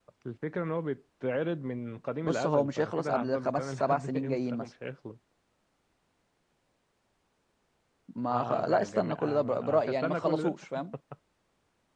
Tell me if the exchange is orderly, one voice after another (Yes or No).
No